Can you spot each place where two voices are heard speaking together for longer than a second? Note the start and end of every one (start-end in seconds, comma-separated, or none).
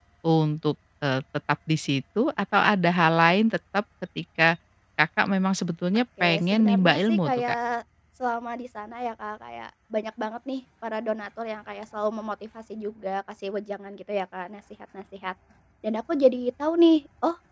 6.2-7.4